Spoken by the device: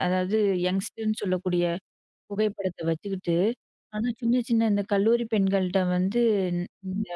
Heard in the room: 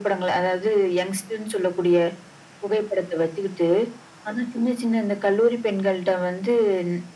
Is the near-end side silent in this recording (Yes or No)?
Yes